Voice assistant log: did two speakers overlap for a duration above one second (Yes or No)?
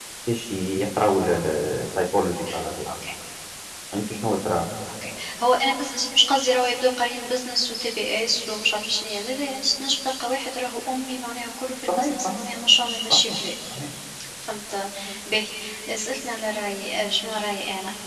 No